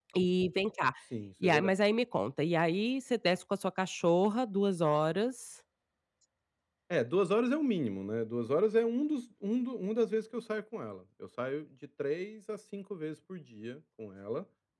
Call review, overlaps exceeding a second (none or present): none